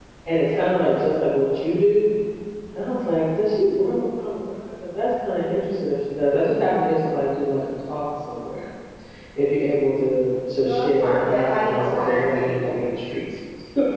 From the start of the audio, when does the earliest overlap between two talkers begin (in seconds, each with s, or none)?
10.6 s